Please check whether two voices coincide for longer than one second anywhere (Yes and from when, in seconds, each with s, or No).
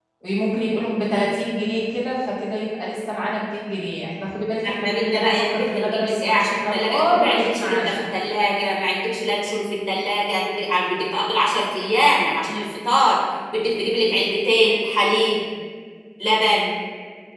Yes, from 4.6 s